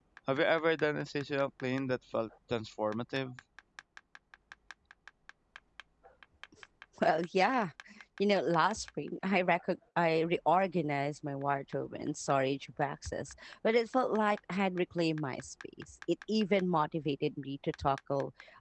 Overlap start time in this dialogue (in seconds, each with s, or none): none